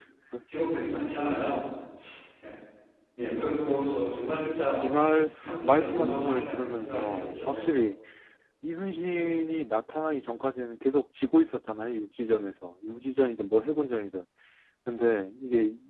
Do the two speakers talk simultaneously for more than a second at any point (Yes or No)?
Yes